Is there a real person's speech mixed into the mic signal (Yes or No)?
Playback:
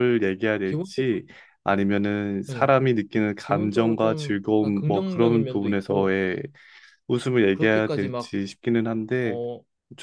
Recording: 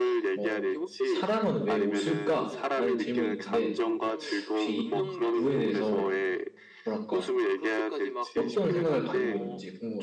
Yes